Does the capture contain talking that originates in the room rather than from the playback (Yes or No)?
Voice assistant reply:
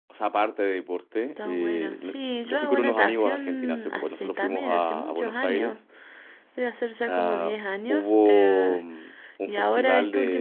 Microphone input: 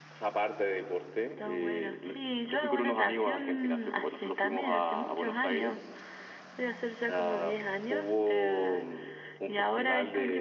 No